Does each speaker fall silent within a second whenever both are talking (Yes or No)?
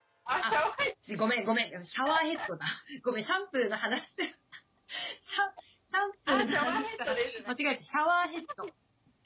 No